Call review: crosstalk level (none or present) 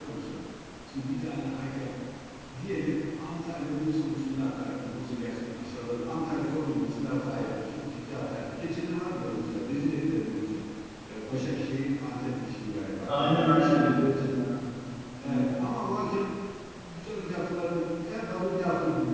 present